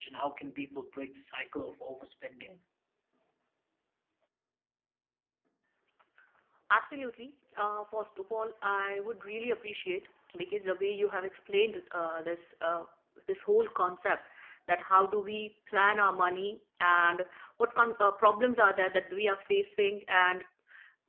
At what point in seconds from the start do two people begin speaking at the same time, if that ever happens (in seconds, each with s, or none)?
none